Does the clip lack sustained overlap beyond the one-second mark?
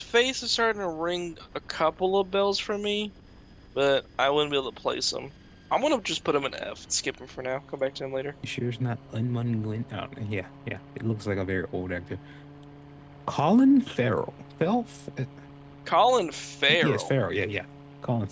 Yes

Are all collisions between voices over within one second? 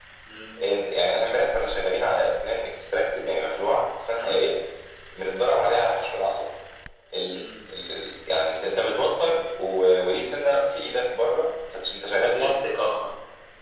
Yes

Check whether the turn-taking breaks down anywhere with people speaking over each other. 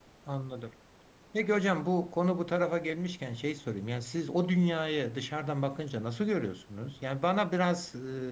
No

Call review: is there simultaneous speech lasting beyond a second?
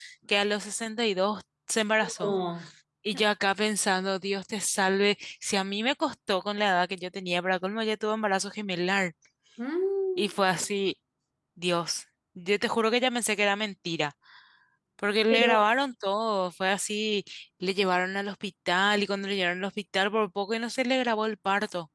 No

